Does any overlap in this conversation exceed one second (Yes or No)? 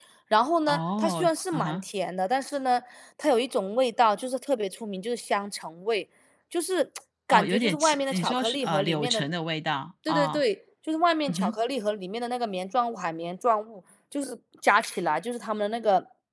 Yes